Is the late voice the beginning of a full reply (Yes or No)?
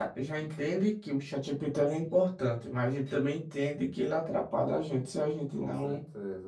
Yes